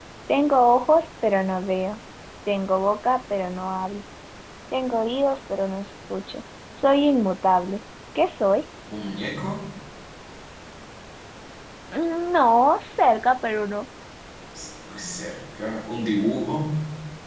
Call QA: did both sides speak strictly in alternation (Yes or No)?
Yes